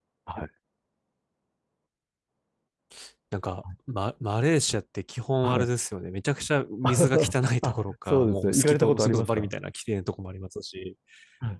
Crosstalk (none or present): present